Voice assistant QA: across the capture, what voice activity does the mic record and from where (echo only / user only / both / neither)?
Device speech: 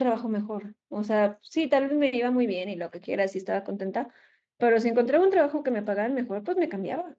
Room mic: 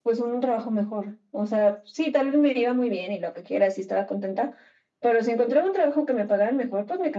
echo only